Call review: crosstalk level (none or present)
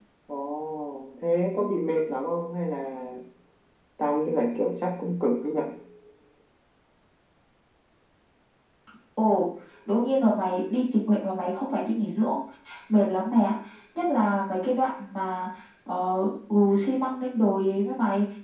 none